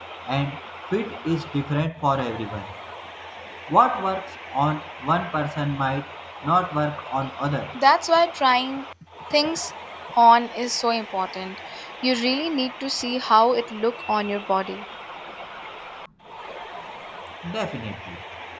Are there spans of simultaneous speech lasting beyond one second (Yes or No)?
No